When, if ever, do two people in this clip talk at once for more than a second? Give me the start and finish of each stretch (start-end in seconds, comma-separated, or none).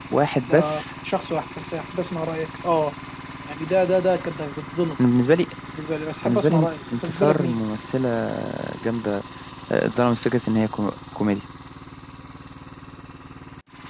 6.2-7.6